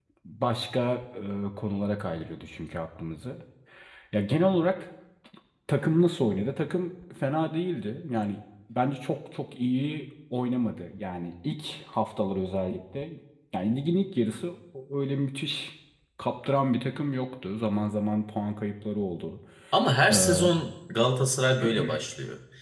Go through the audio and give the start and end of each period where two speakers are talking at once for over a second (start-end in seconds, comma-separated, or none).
none